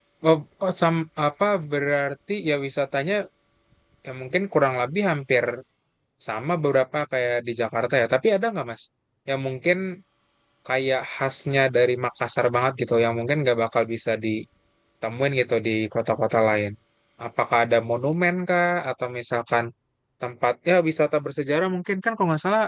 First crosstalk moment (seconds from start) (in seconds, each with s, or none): none